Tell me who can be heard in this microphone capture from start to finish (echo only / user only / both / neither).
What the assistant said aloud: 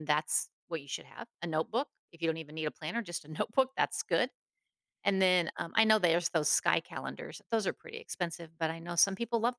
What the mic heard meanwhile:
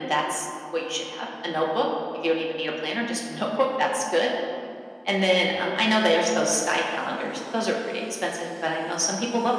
echo only